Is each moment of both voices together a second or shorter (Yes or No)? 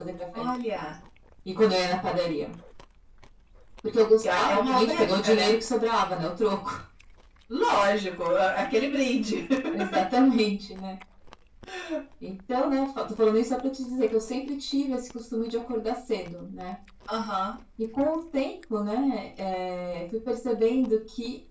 No